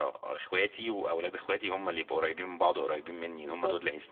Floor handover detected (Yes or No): Yes